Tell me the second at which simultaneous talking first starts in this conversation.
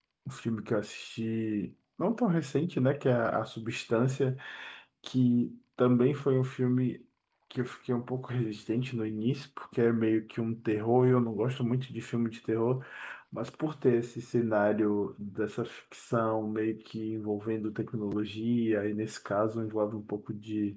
none

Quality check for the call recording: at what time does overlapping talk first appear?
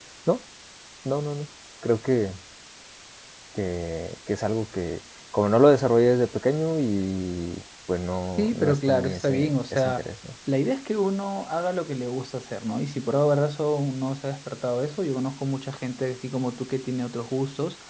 8.4 s

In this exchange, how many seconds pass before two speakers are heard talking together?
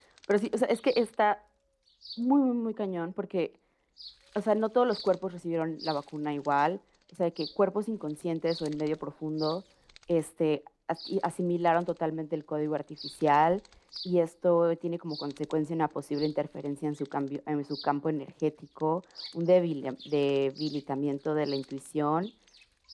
none

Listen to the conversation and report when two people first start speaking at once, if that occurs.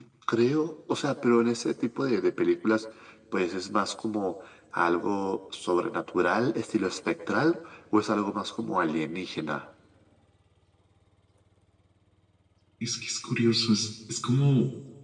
none

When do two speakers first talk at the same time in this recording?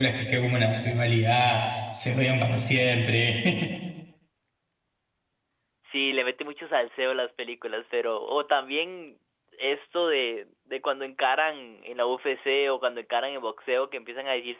none

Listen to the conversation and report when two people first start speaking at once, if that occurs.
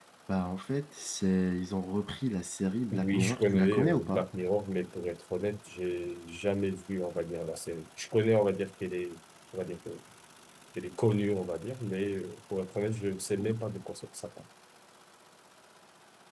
2.9 s

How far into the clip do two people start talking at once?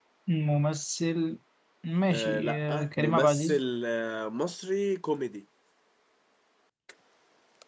2.1 s

